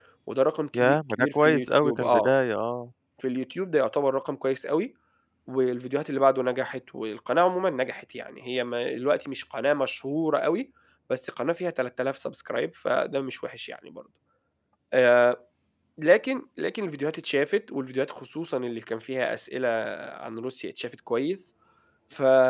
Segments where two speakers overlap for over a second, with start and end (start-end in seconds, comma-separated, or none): 0.8-2.3